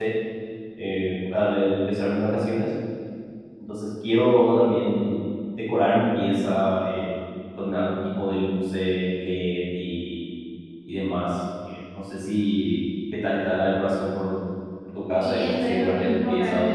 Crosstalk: present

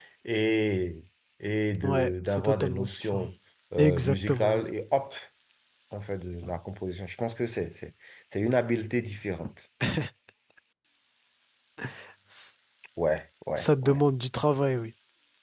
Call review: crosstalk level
present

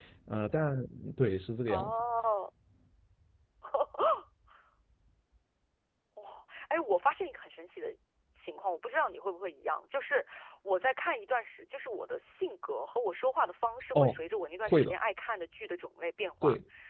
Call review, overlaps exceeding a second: none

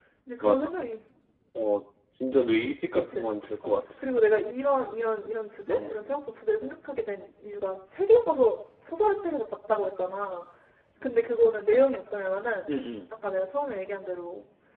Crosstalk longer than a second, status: none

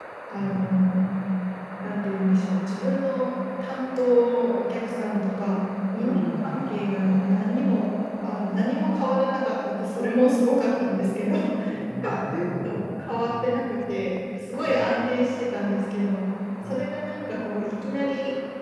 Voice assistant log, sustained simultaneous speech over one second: present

